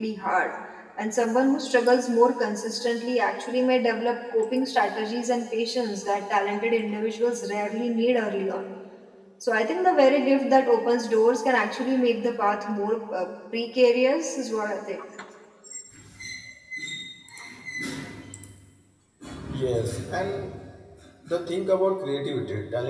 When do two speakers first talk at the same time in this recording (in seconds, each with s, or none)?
none